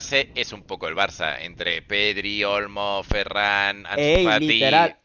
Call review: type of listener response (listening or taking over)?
taking over